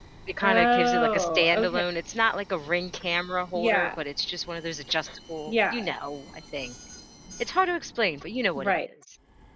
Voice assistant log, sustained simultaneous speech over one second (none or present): present